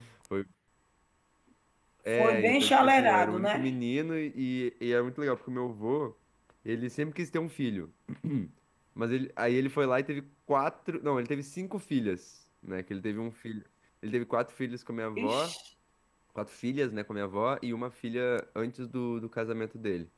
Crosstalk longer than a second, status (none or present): present